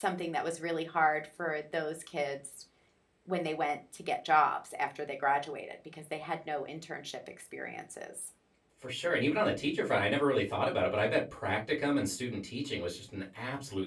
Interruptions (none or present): none